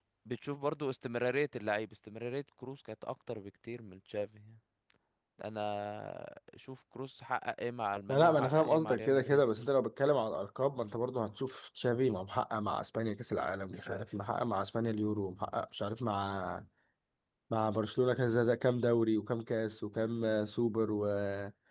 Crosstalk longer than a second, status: present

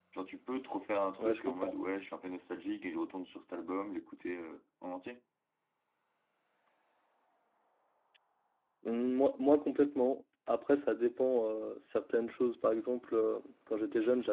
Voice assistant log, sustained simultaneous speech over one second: none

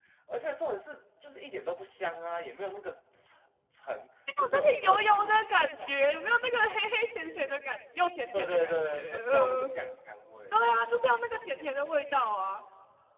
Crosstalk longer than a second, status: present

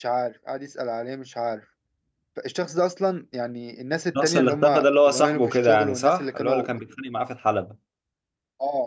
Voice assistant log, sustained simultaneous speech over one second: present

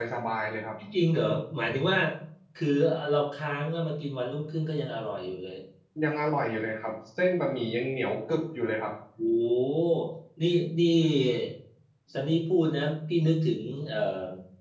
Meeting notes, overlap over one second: none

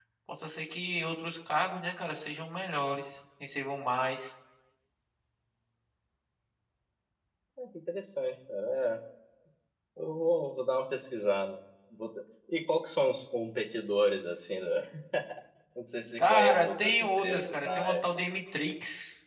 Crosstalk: present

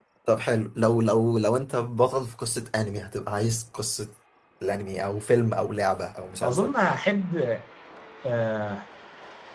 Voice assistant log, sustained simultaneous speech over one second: none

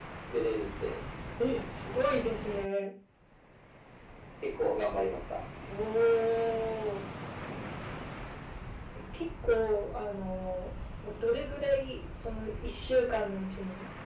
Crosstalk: none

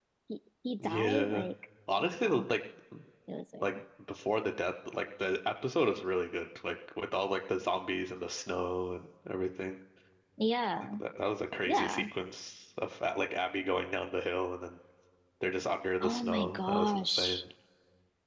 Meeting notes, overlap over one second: present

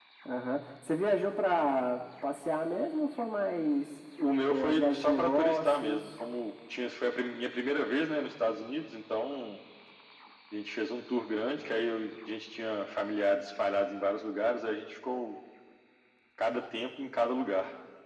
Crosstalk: present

